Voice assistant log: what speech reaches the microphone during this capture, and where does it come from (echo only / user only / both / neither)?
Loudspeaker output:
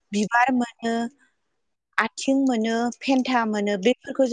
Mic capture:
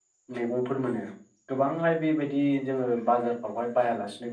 user only